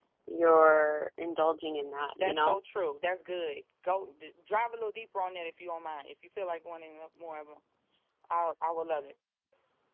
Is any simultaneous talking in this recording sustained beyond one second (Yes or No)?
No